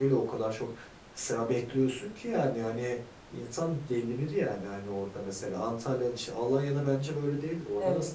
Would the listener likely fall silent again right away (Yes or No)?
No